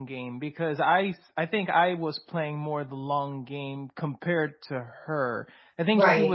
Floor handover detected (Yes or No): No